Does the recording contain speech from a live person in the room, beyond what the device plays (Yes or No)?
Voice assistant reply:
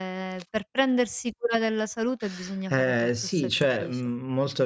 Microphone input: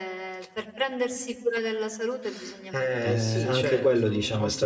Yes